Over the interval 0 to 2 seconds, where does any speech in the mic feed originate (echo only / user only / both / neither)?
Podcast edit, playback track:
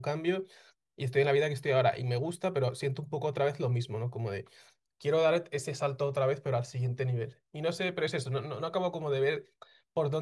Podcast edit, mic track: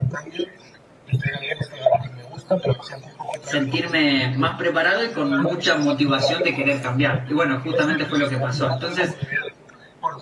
echo only